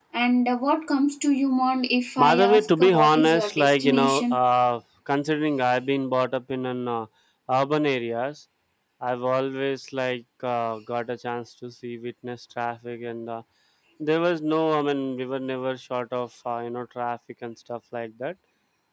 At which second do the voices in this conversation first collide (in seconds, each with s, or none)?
2.2 s